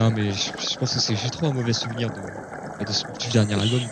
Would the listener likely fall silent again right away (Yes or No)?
No